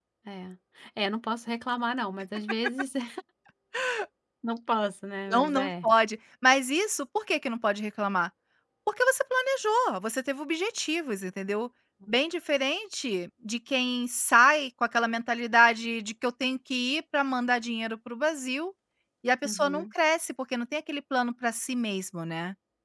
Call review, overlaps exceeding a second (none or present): none